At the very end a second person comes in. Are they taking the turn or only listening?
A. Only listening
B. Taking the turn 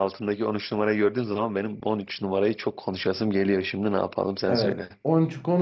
B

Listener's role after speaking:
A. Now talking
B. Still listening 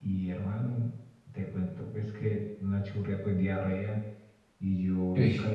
B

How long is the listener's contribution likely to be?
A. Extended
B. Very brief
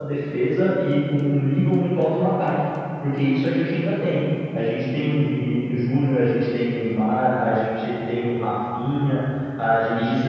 A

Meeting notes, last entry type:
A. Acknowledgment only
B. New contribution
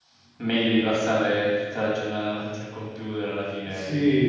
B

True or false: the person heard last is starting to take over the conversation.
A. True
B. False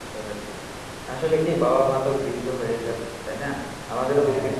B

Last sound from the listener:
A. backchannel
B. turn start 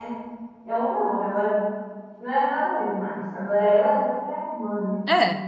A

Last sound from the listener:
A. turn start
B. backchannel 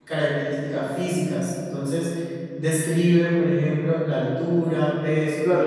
A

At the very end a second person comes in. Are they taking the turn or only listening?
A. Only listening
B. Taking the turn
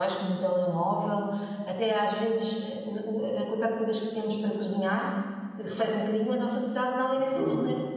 A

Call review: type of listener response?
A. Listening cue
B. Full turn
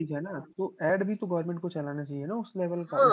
B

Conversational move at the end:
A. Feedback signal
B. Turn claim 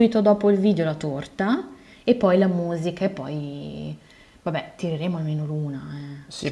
B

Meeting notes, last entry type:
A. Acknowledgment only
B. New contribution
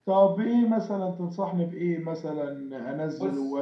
A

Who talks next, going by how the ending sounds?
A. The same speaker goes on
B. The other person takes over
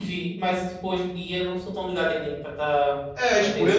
B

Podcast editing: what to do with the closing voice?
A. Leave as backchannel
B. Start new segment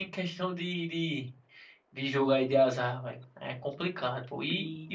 A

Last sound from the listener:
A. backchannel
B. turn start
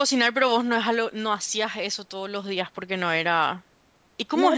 B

